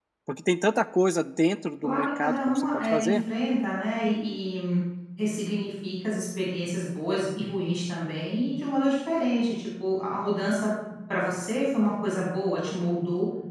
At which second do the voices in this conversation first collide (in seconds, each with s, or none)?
1.8 s